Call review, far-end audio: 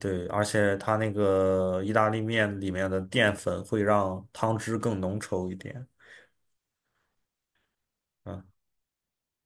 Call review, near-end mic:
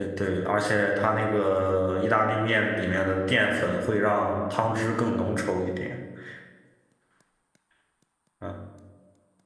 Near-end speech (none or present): none